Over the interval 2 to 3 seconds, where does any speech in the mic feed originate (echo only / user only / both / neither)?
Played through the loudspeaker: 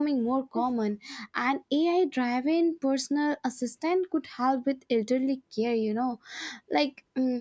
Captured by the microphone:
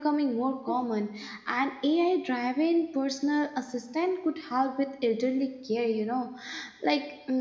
echo only